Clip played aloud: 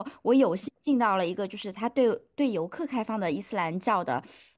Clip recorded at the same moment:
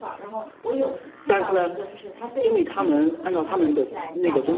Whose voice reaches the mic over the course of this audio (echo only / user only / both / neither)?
both